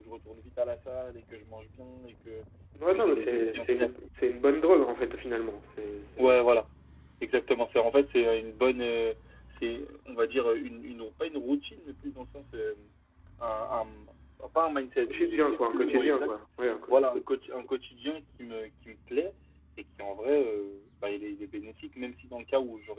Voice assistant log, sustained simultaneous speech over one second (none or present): present